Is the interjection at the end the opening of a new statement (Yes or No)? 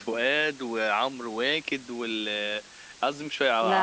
No